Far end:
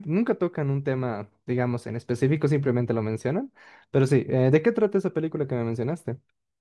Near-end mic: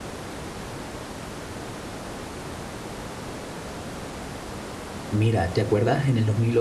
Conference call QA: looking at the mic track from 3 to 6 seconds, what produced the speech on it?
user only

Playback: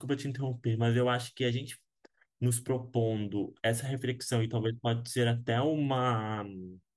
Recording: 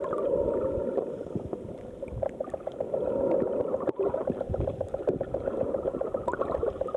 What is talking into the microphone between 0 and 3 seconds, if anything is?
neither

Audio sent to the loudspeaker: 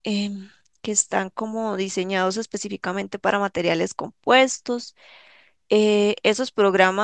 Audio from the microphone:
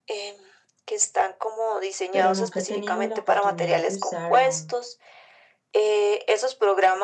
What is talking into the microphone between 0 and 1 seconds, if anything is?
echo only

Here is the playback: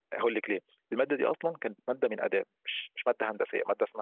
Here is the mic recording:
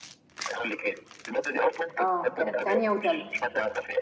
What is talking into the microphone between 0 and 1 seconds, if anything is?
echo only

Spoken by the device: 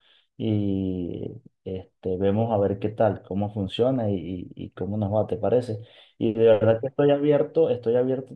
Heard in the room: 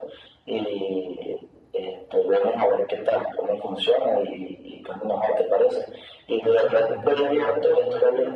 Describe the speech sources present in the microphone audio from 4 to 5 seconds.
echo only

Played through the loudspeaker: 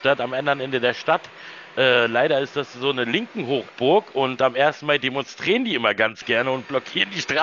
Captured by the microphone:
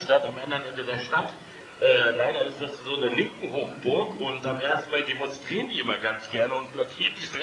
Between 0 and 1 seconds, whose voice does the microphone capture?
echo only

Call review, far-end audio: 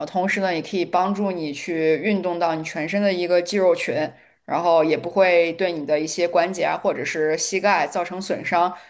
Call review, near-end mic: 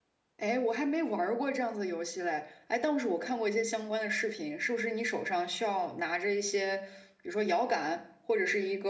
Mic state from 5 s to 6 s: user only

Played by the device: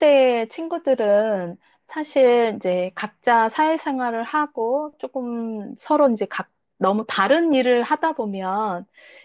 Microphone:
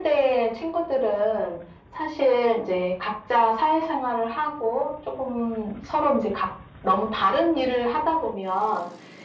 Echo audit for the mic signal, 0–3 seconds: echo only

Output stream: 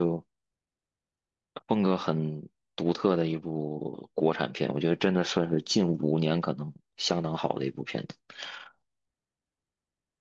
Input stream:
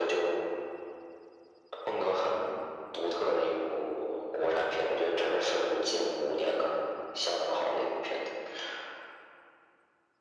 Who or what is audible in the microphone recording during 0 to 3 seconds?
echo only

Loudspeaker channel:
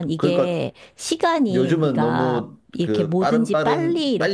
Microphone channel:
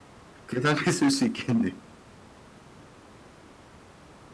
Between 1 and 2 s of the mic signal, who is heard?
user only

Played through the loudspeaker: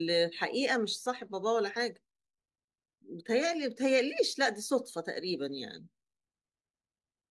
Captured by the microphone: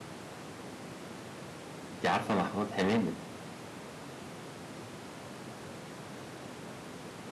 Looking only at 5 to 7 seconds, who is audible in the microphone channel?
neither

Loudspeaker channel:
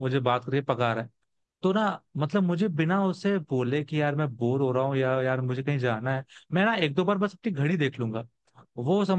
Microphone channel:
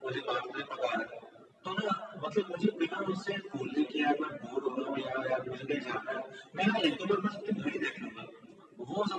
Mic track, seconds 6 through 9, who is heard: echo only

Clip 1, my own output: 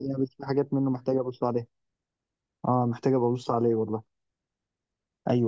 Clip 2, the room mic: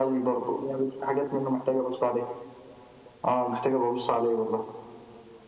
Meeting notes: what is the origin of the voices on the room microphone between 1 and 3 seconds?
echo only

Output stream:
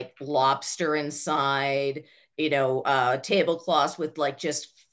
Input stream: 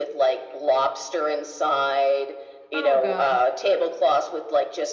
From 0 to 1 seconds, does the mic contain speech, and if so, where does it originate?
echo only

